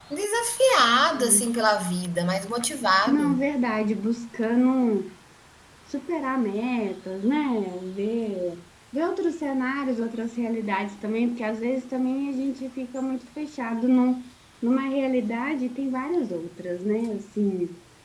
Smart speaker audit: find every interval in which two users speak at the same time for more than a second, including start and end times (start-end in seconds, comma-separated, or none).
none